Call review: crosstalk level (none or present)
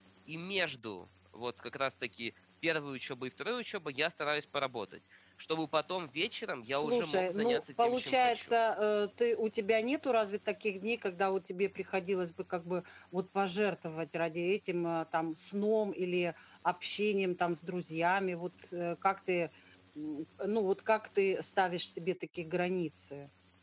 present